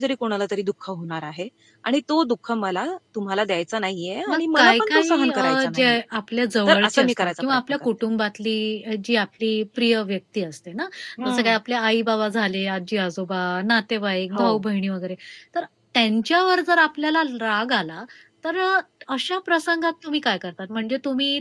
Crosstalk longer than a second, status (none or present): present